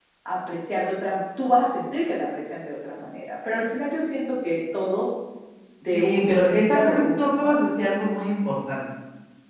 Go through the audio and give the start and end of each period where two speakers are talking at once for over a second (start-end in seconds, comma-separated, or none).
5.9-7.6